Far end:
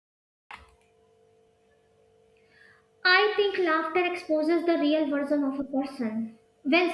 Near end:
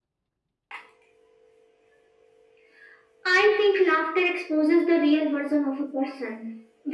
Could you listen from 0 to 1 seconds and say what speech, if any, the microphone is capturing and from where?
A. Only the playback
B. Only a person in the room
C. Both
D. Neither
D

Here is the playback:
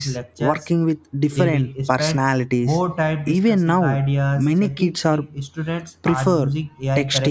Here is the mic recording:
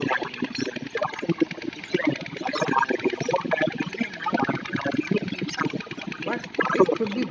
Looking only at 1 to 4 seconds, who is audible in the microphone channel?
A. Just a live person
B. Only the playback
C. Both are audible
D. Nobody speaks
B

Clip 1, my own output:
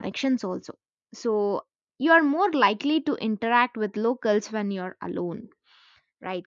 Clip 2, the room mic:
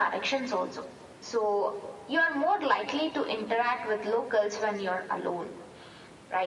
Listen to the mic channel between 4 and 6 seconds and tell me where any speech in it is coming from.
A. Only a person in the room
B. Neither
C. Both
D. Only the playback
D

